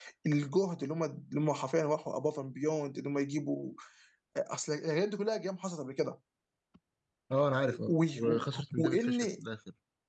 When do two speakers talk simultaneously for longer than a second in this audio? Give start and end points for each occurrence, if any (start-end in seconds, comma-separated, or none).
7.9-9.2